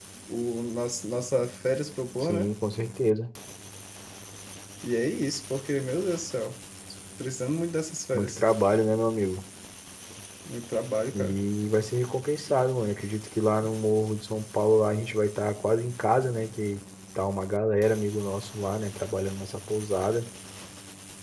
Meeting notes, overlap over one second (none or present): none